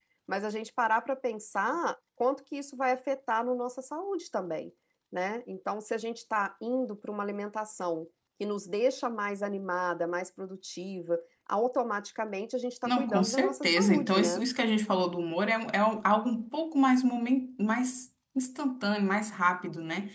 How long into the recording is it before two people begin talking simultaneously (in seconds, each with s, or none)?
12.8 s